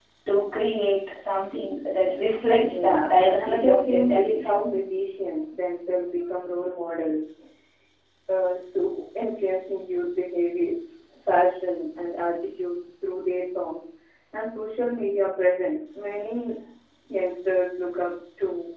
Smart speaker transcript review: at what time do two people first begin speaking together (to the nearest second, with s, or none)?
3 s